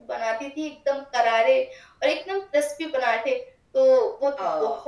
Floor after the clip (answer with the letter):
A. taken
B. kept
B